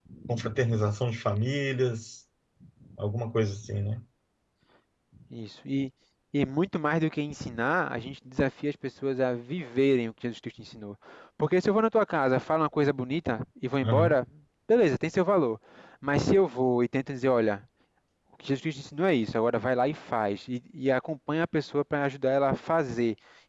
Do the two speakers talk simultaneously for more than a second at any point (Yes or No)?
No